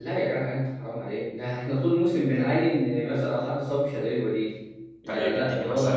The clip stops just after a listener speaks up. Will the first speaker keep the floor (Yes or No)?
No